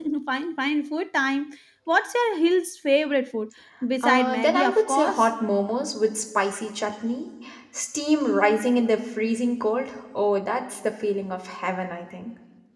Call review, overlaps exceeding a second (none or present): present